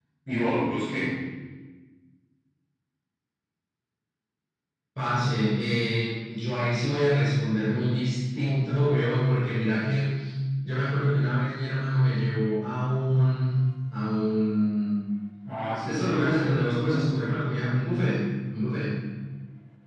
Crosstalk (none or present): present